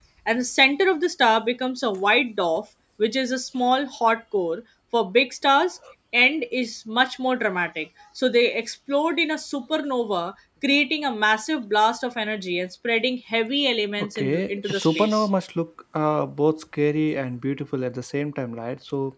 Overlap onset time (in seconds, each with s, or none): 14.0 s